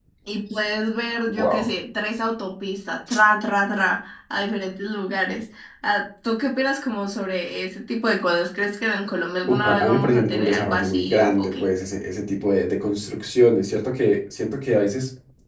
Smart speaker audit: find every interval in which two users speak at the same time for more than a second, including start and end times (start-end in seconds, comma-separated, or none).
9.5-11.6